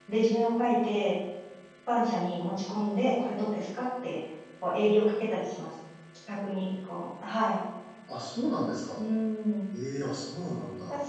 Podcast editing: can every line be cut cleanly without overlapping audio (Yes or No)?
Yes